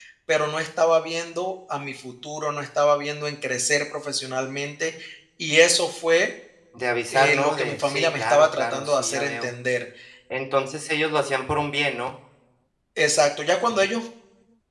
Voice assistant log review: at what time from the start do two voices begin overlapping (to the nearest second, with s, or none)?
7 s